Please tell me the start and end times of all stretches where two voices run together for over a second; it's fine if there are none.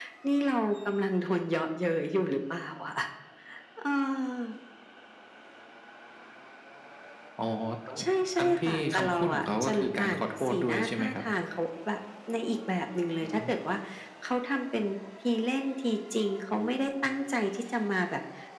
8.4-11.1

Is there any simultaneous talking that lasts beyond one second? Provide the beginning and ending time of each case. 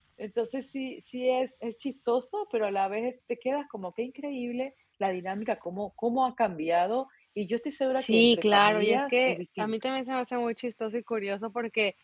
8.0-9.7

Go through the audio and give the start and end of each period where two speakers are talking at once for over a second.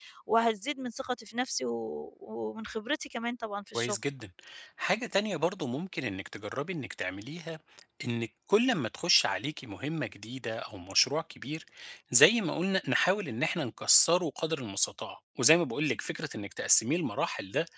none

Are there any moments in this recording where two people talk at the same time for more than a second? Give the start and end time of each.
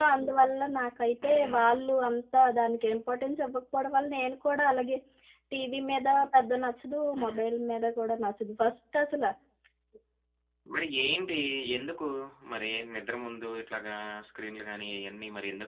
none

